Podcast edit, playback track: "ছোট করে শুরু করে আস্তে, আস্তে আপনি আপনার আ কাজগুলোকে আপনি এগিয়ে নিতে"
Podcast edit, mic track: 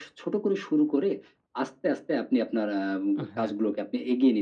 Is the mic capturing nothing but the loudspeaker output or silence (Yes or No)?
No